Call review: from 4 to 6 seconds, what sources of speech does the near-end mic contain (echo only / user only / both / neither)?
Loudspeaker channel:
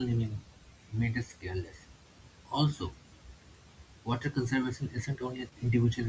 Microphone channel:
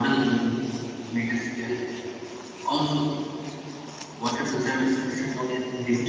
echo only